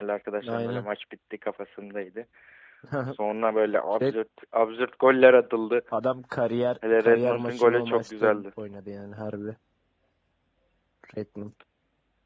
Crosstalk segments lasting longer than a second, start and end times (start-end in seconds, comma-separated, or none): 7.0-8.4